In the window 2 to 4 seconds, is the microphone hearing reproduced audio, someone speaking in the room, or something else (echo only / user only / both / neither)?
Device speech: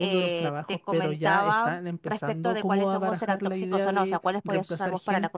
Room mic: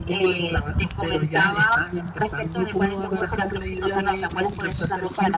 echo only